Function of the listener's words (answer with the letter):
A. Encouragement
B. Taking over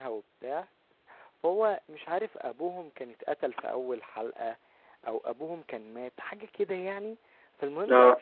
A